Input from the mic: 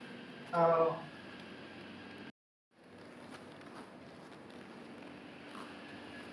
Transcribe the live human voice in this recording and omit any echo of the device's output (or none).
Oh,